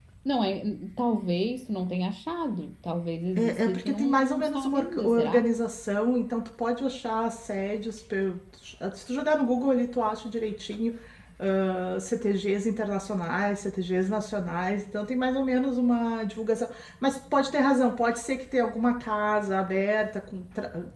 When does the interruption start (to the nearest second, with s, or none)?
3 s